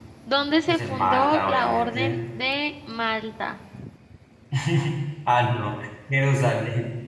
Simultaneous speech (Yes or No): Yes